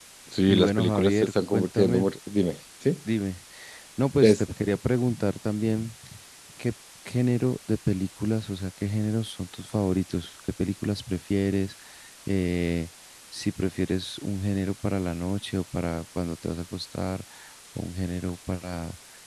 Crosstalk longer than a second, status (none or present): present